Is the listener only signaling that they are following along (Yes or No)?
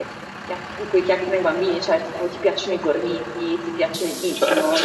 Yes